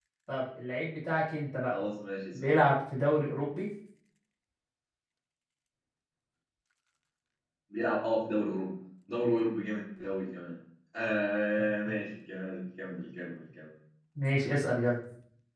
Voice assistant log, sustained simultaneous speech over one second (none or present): none